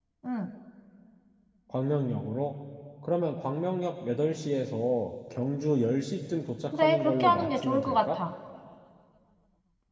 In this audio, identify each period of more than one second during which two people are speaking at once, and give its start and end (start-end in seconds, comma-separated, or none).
6.7-8.2